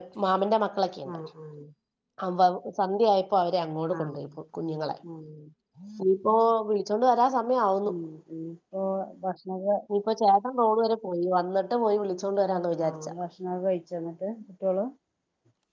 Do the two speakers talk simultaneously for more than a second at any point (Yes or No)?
No